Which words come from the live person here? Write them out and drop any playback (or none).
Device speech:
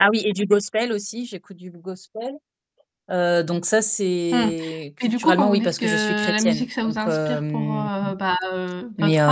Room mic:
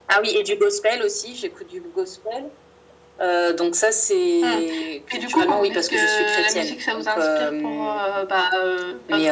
none